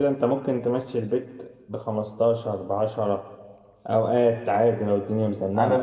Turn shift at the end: Yes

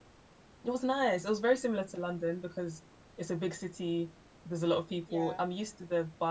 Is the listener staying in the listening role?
Yes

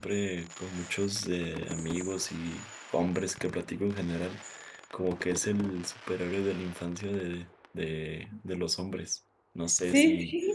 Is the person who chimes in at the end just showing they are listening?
No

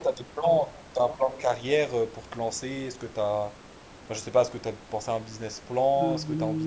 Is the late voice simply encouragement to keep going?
No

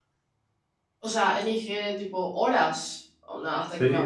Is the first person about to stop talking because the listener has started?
Yes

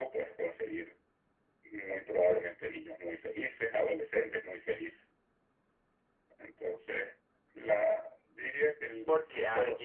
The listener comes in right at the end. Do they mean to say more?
Yes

